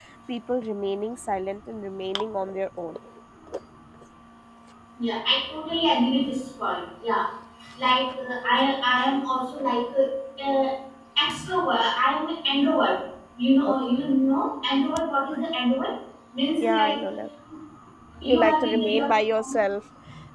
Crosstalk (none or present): present